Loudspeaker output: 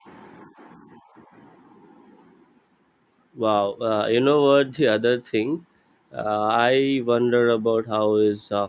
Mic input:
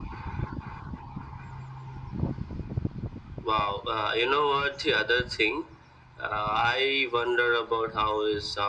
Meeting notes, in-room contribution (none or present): none